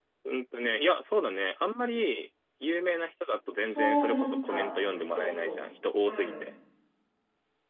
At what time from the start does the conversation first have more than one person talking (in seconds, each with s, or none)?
3.6 s